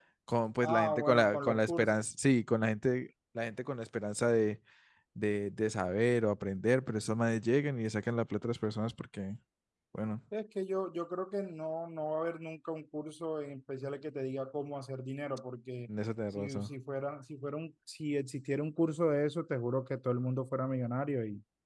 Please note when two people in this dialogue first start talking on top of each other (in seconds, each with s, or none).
0.6 s